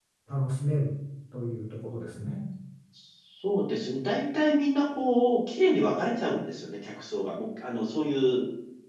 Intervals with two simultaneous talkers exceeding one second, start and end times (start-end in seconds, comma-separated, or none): none